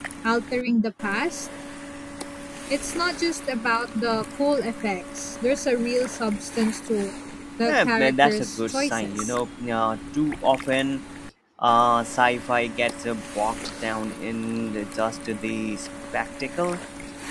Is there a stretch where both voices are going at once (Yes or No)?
Yes